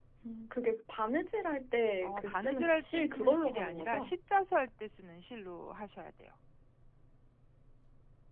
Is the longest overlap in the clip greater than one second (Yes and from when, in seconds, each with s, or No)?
Yes, from 2.0 s